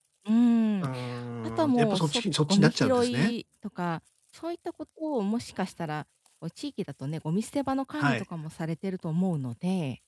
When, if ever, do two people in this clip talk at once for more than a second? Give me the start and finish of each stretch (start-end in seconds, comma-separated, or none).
1.7-3.3